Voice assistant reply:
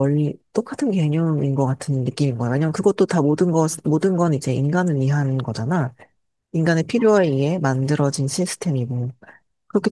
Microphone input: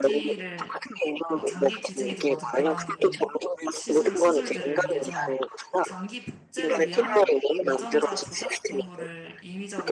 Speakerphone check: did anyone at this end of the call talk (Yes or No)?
Yes